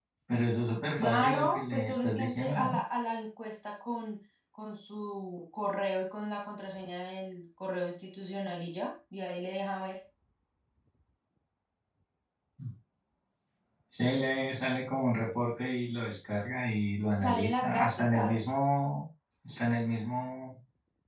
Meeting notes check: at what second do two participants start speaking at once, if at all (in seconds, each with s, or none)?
1.0 s